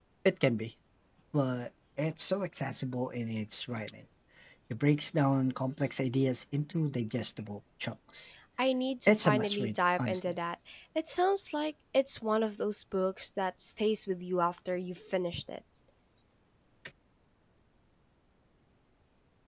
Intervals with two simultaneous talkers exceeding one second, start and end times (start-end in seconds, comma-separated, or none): 9.1-10.4